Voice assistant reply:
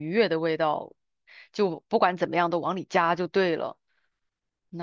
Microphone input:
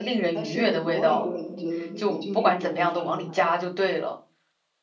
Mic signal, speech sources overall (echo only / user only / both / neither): both